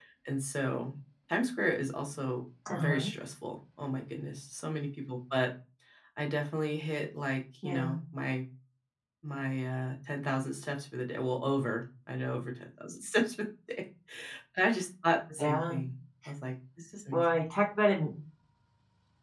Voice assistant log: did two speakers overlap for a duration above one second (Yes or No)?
No